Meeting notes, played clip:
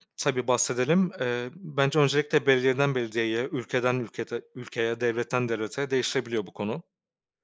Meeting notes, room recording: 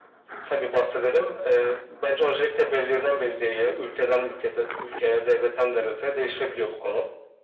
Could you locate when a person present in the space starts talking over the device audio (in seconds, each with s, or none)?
none